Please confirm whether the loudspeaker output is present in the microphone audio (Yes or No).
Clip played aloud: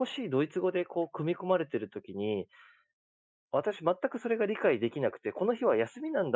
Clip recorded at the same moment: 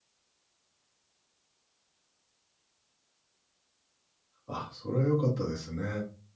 No